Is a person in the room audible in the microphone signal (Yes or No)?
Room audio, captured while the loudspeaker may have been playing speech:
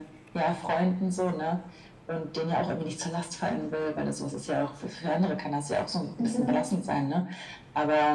Yes